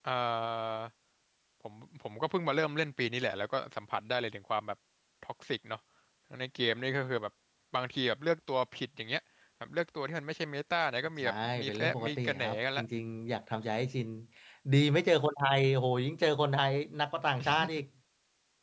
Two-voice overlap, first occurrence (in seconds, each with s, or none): 11.2 s